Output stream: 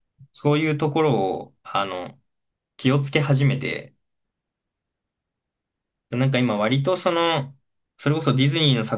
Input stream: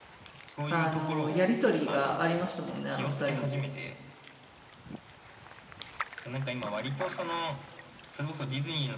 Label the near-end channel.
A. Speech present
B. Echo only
A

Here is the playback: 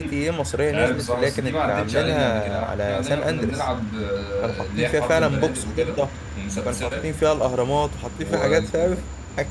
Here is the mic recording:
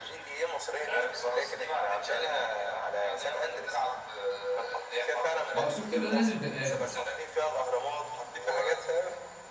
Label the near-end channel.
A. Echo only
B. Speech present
B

